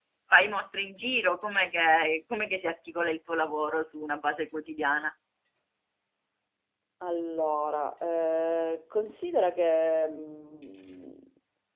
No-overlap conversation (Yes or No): Yes